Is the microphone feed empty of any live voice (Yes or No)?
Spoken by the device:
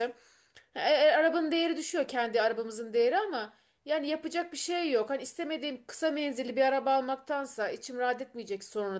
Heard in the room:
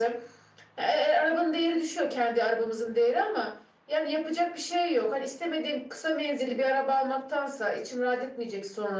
Yes